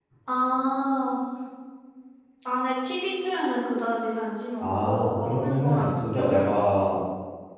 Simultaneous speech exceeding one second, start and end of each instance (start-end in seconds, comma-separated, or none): 4.6-6.8